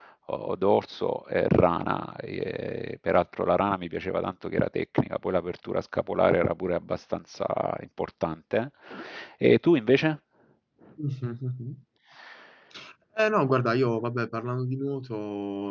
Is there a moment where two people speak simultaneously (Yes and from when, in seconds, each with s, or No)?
No